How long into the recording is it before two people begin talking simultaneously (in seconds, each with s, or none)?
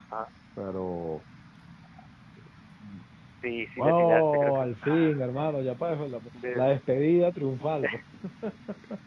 3.8 s